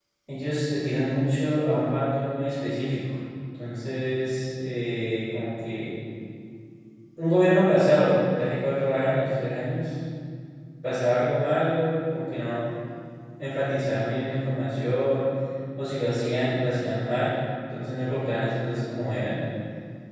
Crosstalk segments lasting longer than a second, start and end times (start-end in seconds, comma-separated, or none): none